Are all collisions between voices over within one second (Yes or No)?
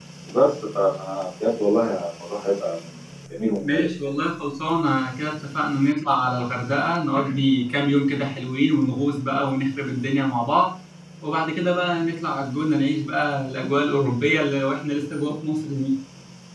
Yes